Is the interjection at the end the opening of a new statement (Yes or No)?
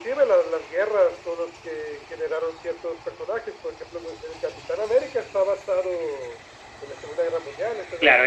Yes